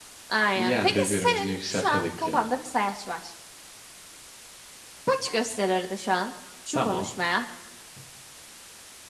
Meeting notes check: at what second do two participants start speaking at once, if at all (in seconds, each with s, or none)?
0.6 s